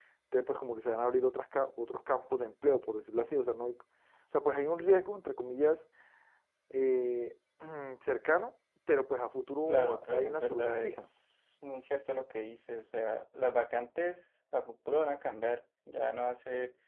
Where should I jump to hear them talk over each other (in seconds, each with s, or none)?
9.7 s